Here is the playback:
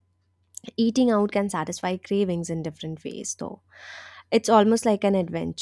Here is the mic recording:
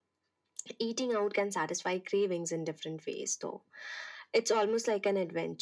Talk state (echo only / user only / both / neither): echo only